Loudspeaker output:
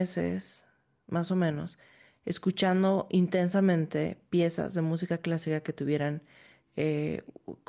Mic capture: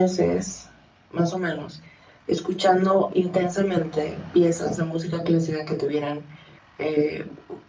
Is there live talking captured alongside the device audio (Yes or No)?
No